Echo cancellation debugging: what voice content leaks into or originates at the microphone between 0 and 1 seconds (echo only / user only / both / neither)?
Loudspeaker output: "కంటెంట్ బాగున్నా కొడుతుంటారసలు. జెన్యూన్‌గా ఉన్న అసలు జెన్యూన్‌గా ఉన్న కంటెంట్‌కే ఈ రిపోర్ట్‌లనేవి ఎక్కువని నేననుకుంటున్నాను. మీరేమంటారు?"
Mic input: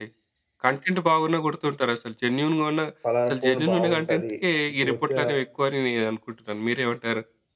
echo only